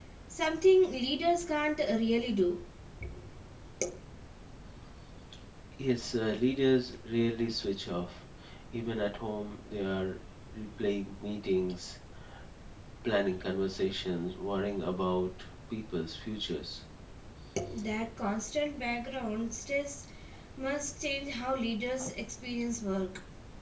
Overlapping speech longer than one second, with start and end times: none

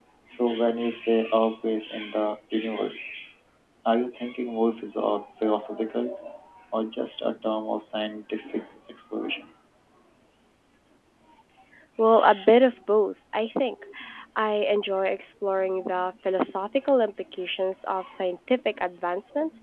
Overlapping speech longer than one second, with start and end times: none

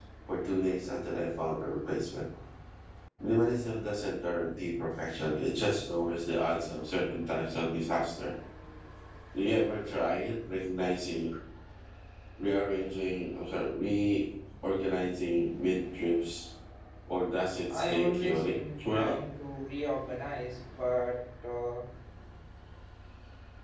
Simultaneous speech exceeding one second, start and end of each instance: 17.8-19.2

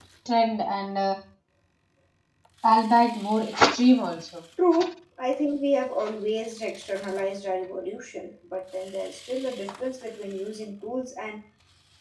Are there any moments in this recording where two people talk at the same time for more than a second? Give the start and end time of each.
none

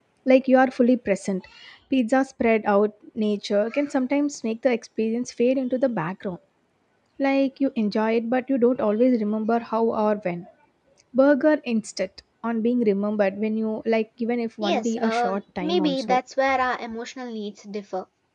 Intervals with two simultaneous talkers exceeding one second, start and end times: 14.6-16.2

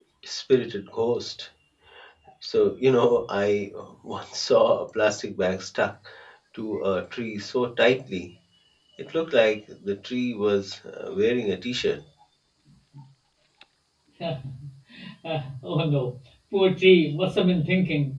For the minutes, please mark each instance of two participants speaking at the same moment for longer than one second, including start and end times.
none

